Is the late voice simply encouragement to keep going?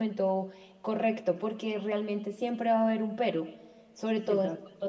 Yes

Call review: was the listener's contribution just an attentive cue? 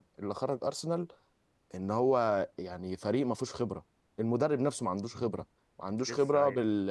Yes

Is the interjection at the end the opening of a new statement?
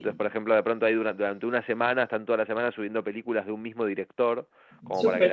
No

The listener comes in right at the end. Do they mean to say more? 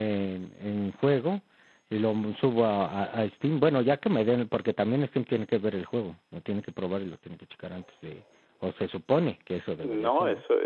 Yes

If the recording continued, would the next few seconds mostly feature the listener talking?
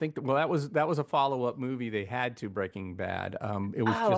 No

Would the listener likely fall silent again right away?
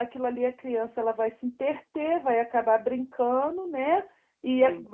Yes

